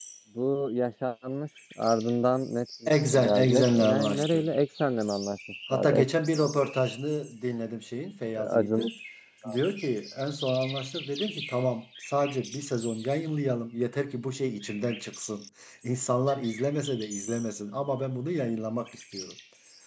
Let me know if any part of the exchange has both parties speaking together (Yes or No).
Yes